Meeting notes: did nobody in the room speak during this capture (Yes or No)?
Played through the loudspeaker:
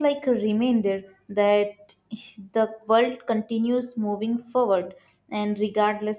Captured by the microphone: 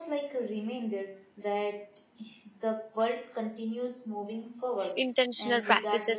No